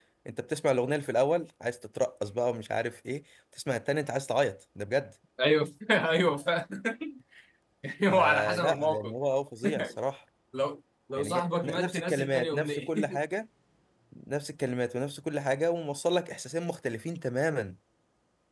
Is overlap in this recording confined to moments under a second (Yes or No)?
No